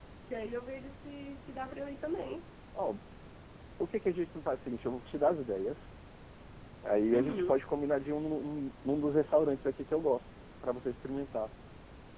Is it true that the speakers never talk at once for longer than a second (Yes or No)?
Yes